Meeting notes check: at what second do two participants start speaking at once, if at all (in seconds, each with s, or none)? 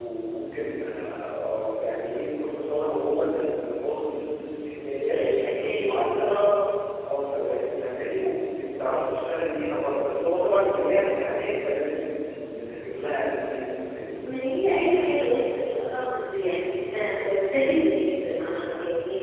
5.1 s